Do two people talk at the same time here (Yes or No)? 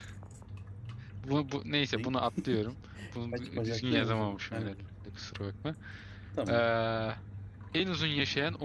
Yes